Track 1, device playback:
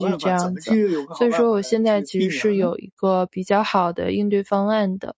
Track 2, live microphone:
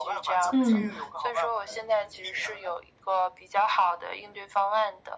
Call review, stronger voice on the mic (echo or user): user